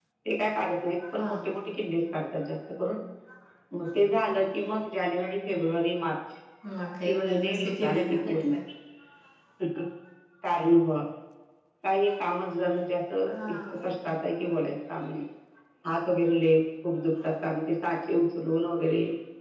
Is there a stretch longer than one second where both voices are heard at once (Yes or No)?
Yes